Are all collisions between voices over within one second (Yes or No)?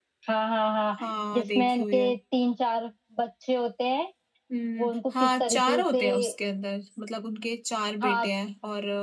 No